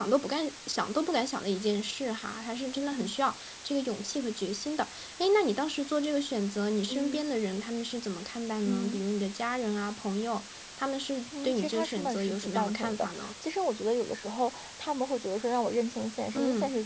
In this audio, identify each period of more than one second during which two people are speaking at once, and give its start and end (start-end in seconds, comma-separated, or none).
11.4-13.3